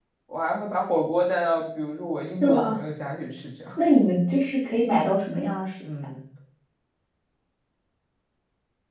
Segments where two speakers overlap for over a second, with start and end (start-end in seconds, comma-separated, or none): none